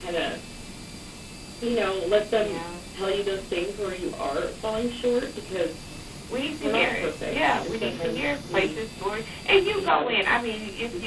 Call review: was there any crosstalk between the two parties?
Yes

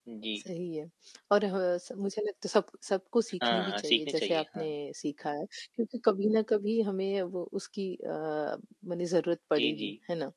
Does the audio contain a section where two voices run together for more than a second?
Yes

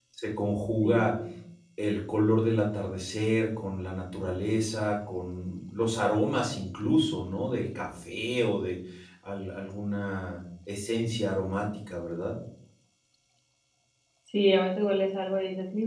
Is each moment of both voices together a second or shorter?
Yes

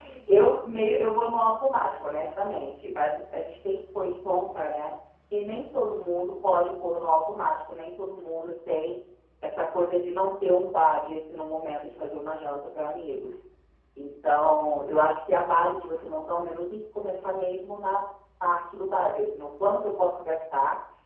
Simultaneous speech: No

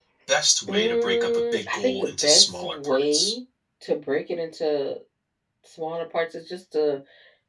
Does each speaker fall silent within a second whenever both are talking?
No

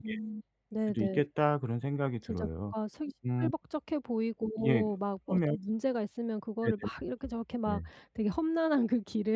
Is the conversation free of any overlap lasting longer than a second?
Yes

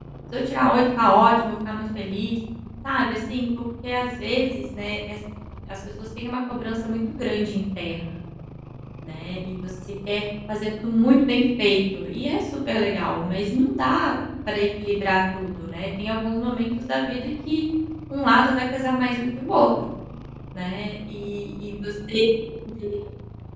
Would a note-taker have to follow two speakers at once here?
No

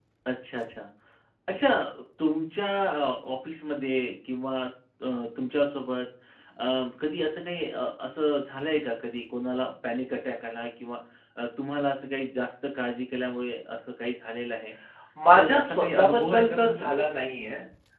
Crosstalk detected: Yes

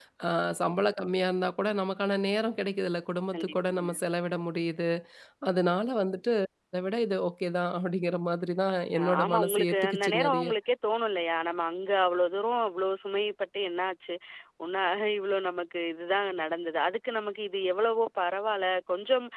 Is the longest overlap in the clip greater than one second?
Yes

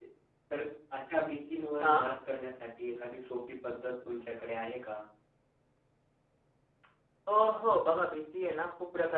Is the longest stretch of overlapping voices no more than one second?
Yes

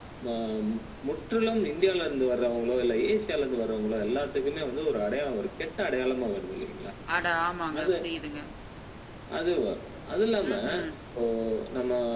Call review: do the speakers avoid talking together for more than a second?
Yes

